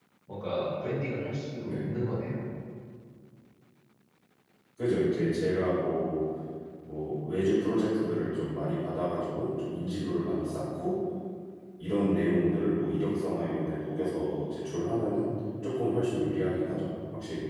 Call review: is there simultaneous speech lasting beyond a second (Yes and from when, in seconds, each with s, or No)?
No